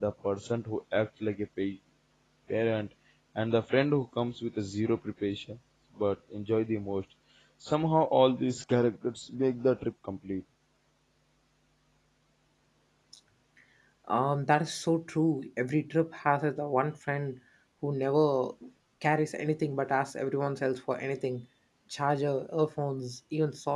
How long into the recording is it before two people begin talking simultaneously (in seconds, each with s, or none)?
none